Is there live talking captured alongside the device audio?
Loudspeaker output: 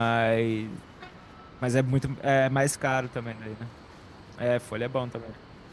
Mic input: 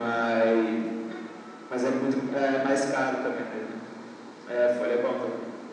No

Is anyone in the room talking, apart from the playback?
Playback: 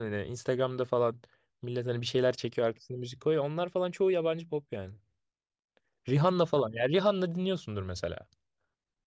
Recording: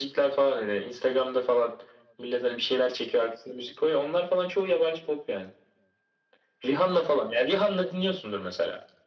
No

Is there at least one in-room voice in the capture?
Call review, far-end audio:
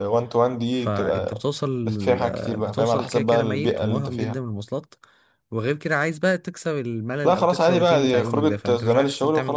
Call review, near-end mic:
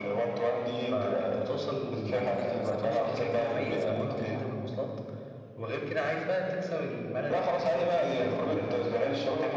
Yes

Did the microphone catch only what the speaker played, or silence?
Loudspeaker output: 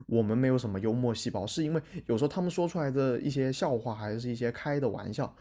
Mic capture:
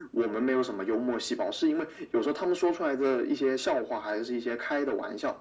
Yes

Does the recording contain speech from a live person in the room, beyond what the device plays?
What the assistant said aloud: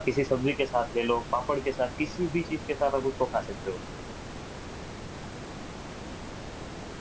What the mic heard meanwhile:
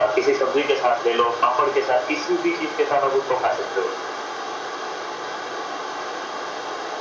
No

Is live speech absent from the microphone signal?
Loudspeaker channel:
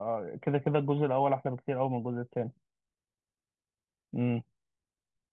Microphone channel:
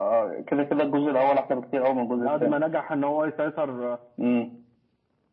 No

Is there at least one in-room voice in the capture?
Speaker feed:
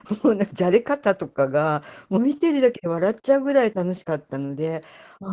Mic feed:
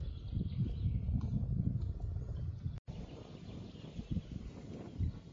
No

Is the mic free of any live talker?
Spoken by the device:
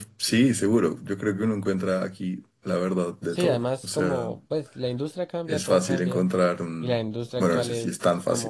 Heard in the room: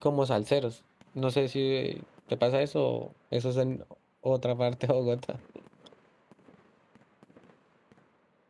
No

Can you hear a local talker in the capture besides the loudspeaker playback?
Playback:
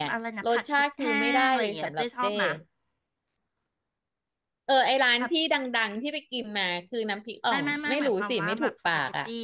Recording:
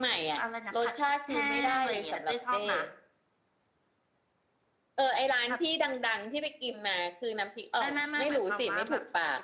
No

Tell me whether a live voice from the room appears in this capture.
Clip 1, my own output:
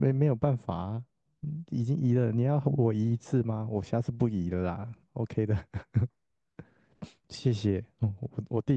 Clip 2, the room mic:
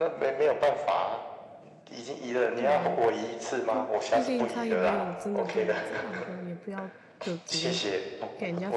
Yes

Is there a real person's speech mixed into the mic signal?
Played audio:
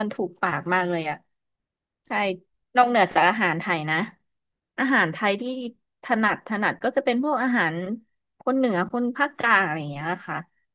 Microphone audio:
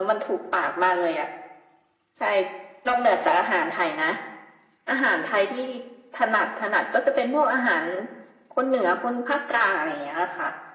No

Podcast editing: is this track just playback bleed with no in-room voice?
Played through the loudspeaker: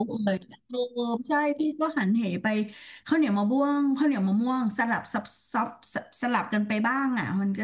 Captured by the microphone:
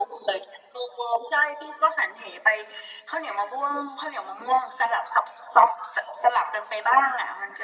Yes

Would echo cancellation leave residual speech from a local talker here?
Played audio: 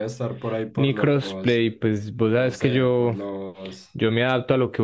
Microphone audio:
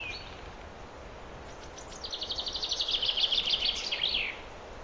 No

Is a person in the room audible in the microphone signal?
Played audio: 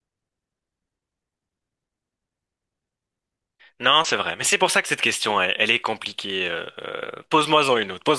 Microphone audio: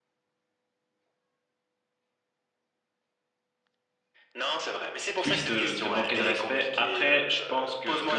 Yes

